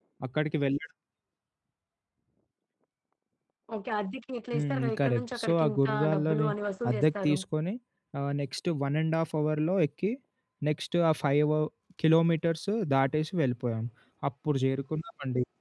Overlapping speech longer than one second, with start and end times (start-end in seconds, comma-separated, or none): 4.5-6.5